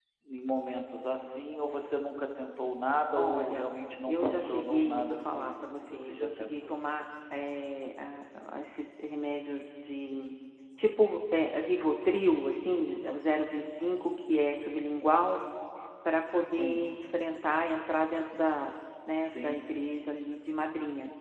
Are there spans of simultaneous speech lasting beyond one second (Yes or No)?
Yes